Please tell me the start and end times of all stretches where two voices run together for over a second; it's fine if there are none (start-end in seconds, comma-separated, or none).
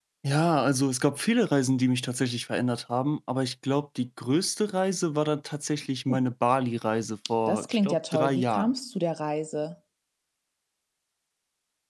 7.5-8.7